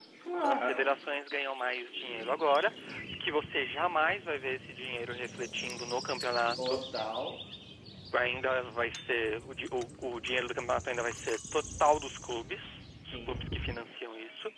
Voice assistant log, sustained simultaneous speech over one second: none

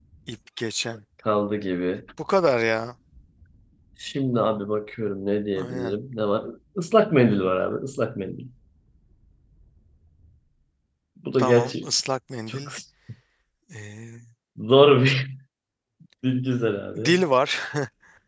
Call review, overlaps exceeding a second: none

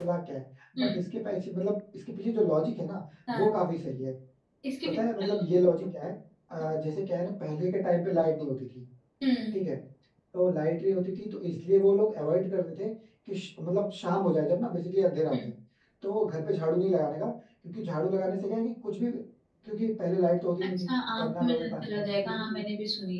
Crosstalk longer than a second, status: present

